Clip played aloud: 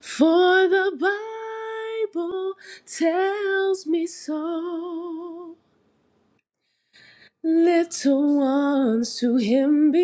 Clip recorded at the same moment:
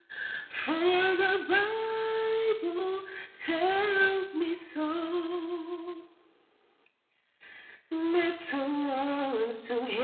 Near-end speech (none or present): none